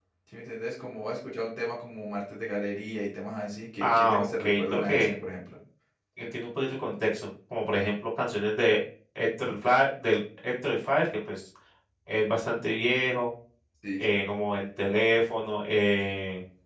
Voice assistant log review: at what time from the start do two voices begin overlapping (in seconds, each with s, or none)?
3.8 s